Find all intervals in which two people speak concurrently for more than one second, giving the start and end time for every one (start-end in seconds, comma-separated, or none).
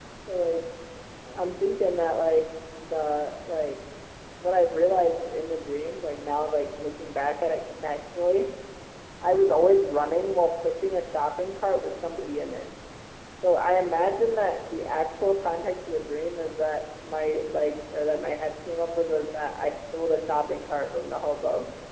none